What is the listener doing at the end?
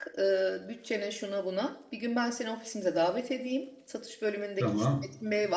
listening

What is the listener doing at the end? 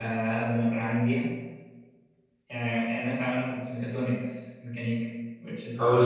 taking over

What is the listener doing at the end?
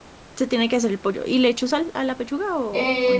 taking over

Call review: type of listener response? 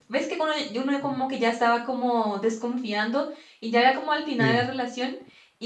listening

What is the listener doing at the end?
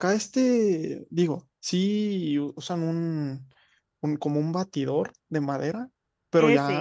listening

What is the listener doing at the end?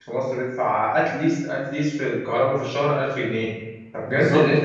listening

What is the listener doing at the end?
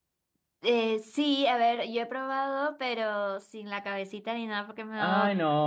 taking over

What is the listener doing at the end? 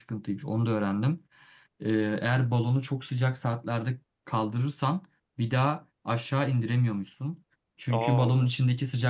listening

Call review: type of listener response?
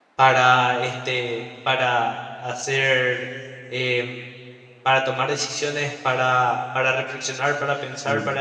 listening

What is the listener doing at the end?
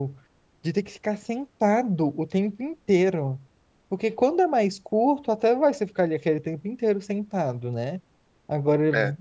listening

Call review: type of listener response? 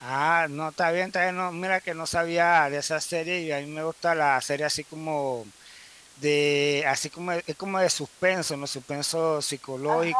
taking over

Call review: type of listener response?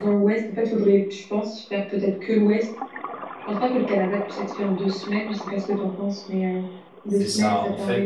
taking over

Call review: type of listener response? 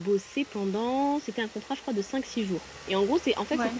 listening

